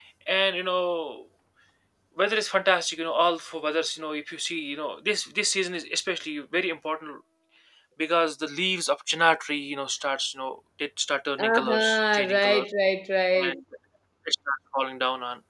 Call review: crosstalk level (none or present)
present